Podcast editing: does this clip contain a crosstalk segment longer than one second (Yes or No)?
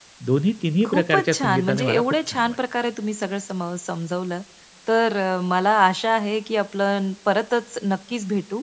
Yes